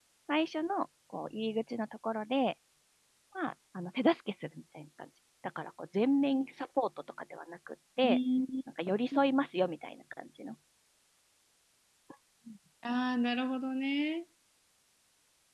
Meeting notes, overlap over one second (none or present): none